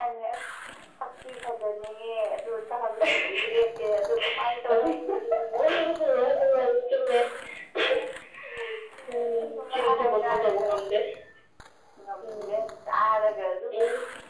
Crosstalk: present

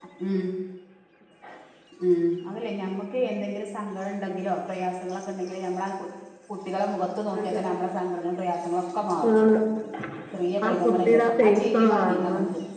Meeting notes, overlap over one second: present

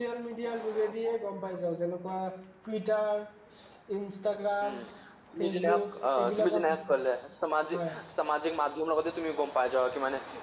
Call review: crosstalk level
present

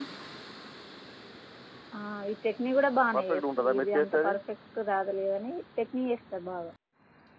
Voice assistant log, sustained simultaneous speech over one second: present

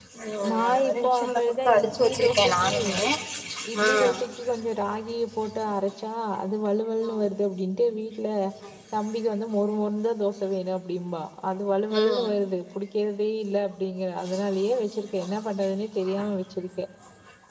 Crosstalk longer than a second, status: present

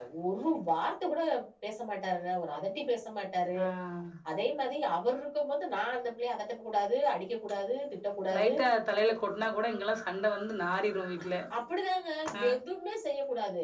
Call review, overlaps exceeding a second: none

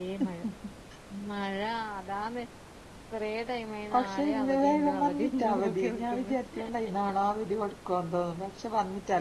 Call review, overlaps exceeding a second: present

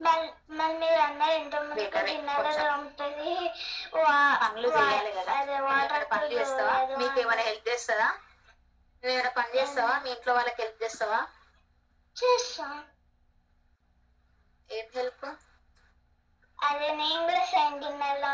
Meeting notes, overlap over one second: present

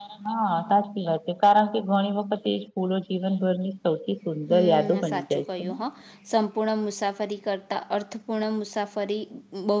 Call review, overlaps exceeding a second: present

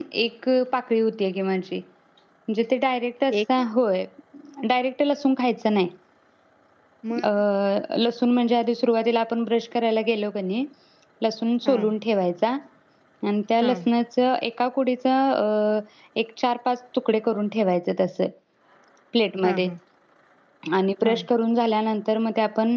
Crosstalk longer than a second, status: none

